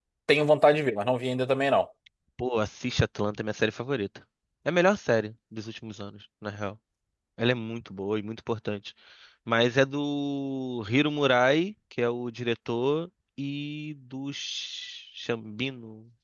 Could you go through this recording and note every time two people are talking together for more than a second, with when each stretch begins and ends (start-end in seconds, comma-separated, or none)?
none